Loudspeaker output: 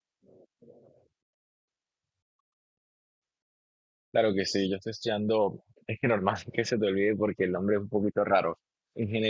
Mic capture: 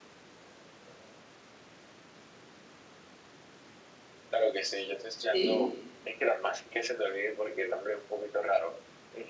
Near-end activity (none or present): present